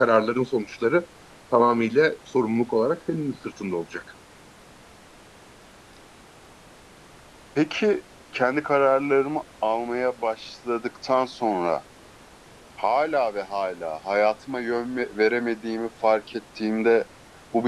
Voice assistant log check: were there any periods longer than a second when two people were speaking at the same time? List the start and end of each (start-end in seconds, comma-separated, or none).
none